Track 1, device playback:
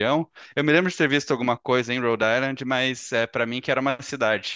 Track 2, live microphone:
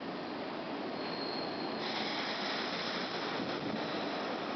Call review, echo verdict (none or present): none